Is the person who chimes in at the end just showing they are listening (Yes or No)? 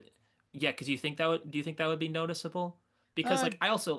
Yes